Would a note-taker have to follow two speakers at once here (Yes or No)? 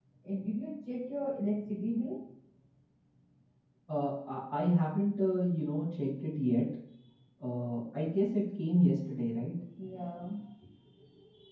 No